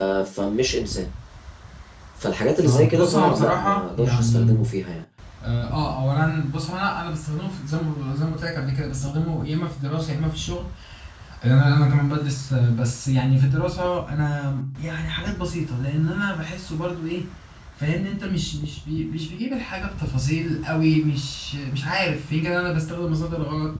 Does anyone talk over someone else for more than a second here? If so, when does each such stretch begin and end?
2.6-4.6

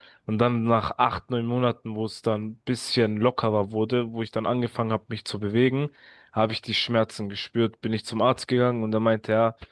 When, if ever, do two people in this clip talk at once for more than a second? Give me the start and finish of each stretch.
none

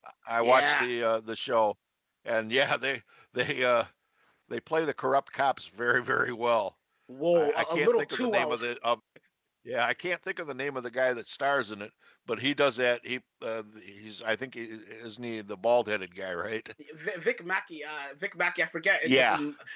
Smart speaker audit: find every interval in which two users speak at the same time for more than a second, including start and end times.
7.3-8.6

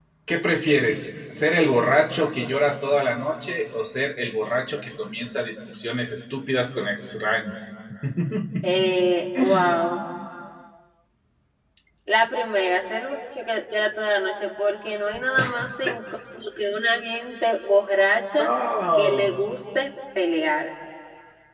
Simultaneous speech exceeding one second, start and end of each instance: none

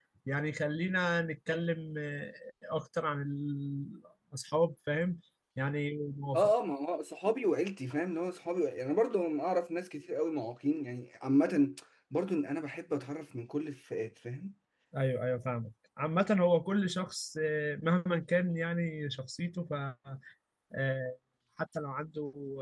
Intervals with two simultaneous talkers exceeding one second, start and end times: none

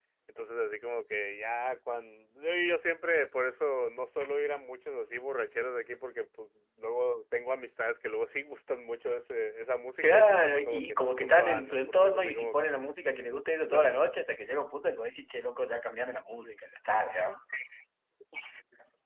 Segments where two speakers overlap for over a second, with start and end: 10.0-12.8

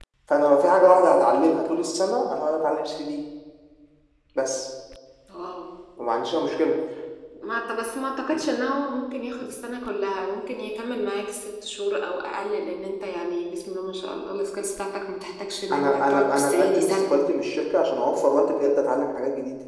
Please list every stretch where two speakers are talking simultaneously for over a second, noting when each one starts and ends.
15.7-17.1

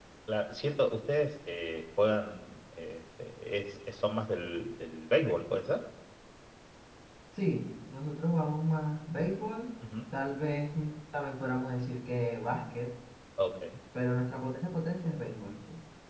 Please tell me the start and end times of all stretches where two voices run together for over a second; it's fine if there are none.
none

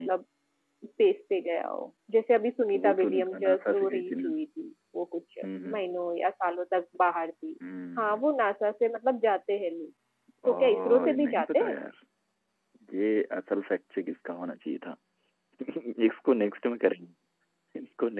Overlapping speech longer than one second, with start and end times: 2.7-4.3, 10.5-11.8

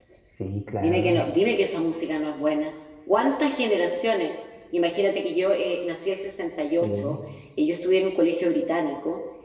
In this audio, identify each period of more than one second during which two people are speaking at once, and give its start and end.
none

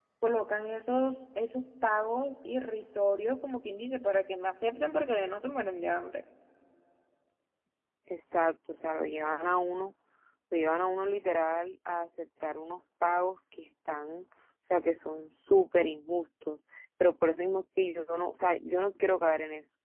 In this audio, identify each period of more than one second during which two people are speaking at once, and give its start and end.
none

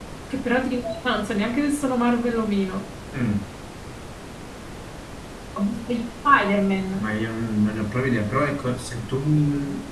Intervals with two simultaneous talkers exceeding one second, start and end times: none

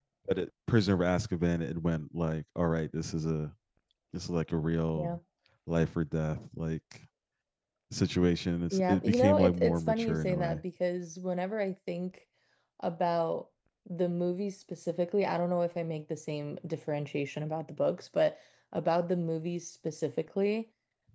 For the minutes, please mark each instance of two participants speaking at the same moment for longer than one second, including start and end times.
8.7-10.6

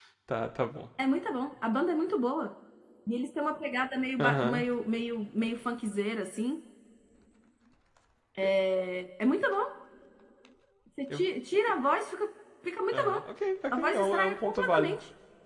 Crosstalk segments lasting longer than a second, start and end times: 13.7-15.0

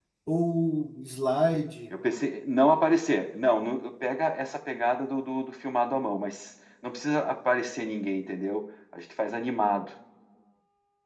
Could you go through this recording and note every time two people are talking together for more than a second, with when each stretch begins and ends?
none

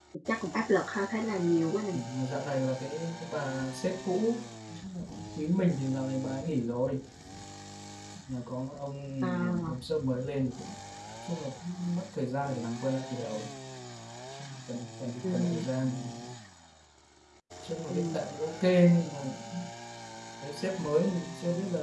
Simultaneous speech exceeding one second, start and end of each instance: none

